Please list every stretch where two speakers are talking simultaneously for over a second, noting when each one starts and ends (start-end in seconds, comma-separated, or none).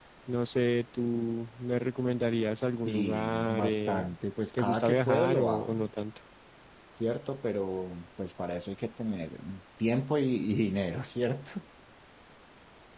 2.8-4.1, 4.6-5.8